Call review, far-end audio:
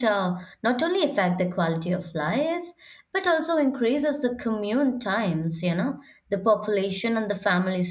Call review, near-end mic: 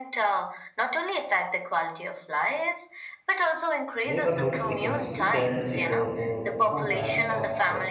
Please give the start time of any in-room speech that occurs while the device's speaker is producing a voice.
4.0 s

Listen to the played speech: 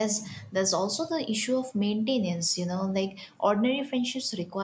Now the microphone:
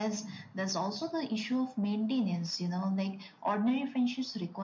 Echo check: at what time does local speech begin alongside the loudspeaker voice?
none

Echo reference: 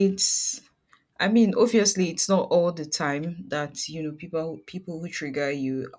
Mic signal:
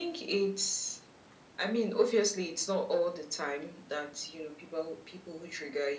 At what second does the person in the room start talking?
none

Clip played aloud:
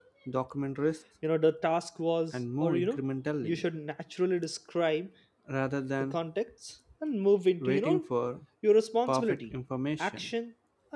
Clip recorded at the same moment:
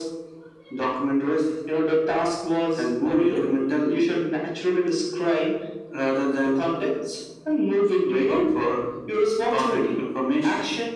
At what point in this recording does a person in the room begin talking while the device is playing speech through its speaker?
none

